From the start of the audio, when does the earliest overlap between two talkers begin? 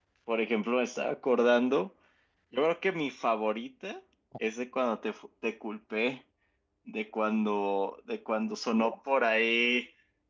none

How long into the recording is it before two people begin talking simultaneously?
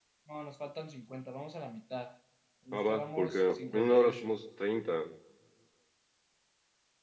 2.7 s

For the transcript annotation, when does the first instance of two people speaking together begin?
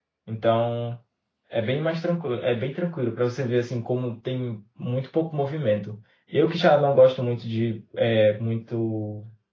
none

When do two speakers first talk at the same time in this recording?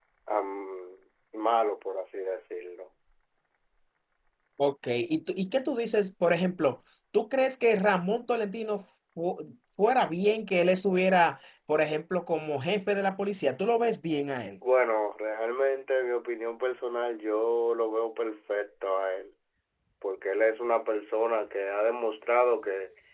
none

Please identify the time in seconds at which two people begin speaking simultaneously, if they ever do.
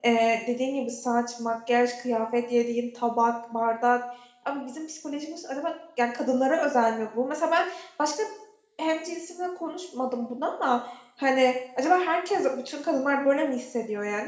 none

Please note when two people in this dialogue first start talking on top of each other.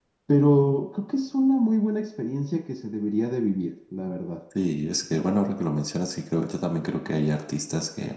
none

